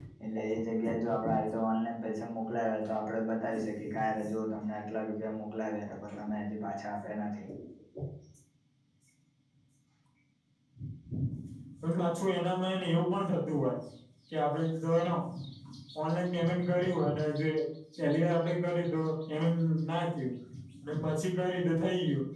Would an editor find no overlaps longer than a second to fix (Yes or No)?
Yes